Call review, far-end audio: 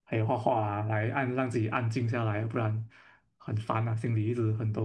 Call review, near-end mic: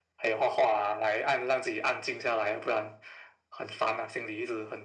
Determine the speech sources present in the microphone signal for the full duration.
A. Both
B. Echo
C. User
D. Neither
B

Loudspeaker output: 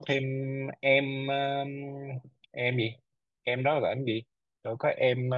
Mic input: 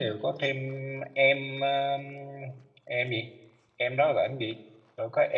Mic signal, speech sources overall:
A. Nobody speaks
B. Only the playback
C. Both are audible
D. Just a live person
B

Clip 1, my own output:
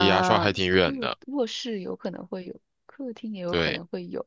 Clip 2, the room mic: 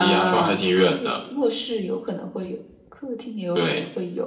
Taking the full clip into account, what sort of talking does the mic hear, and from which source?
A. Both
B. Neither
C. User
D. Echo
D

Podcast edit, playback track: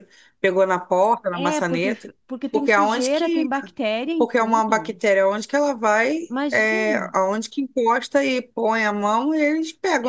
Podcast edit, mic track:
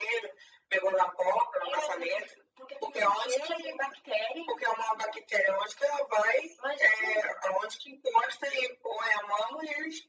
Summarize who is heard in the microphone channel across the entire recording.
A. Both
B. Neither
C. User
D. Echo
D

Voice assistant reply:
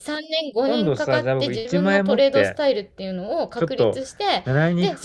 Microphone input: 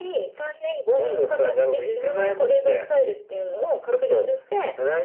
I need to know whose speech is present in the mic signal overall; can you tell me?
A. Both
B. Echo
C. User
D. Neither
B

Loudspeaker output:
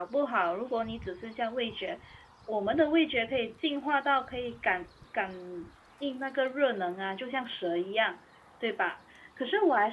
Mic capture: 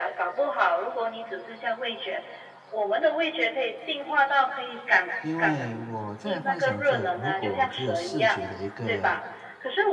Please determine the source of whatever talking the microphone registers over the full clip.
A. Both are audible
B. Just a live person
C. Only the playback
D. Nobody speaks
A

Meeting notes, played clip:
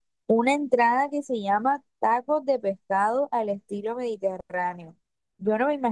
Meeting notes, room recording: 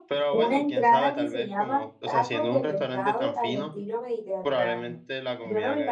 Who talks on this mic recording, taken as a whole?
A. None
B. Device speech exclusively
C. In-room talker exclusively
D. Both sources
D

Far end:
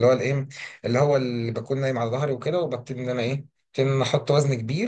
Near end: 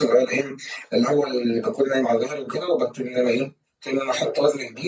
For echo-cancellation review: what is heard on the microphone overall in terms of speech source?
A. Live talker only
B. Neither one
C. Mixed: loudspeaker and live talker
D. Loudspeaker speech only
D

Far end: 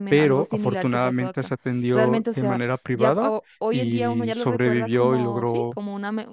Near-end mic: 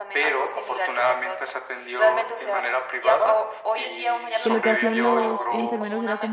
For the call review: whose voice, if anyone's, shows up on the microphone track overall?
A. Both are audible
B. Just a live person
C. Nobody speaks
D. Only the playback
A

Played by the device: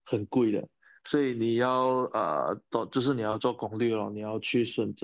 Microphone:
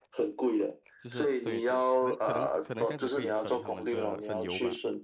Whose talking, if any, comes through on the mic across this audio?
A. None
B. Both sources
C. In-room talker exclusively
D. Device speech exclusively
B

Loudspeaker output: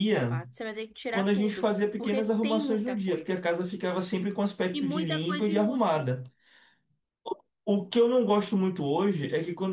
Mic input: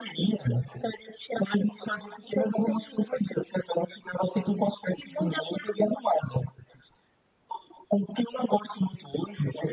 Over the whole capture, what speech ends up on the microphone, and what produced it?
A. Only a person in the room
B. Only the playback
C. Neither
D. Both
B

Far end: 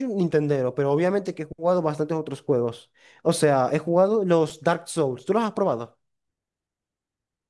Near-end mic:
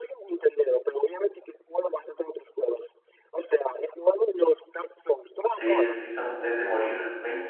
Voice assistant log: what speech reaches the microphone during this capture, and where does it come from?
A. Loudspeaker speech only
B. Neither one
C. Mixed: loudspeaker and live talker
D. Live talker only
C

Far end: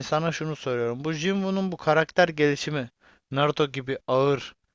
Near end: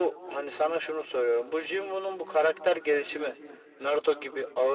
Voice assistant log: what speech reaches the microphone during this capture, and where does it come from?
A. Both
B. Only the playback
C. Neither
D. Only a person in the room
B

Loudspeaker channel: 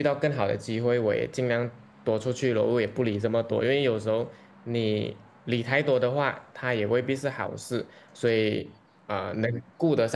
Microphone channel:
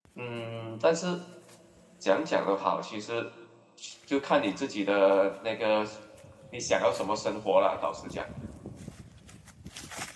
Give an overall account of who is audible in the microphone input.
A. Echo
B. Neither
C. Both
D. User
D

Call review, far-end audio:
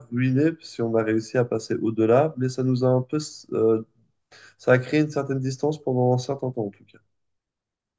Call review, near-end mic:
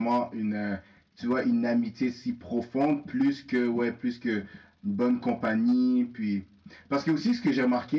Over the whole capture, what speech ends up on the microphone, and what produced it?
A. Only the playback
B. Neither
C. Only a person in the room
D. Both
C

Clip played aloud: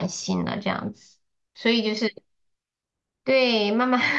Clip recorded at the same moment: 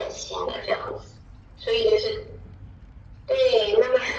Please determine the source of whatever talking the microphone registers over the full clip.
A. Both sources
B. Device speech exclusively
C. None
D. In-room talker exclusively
B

